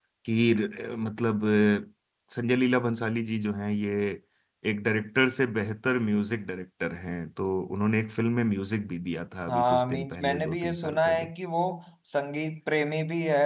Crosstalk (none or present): present